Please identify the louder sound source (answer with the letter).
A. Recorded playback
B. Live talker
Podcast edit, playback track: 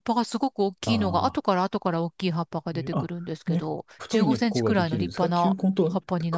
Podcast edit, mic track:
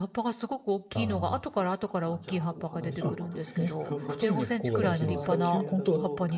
A